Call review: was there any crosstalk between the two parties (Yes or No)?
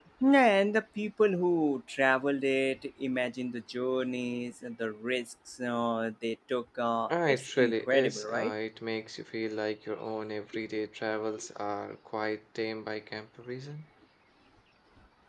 Yes